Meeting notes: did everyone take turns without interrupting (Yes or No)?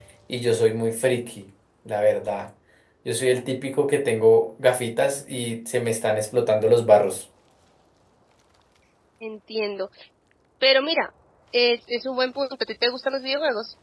Yes